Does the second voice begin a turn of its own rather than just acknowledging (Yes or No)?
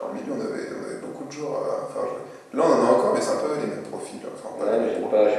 Yes